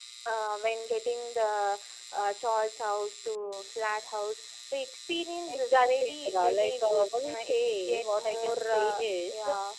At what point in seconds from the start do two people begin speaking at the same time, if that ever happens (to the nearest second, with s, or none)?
5 s